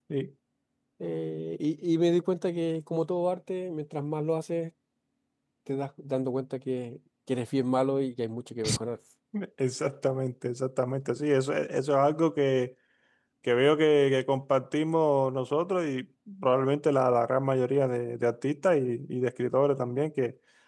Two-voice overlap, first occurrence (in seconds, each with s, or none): none